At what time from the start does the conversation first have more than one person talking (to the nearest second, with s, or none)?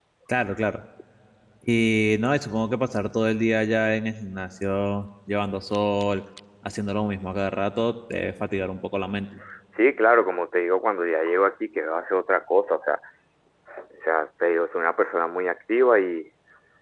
none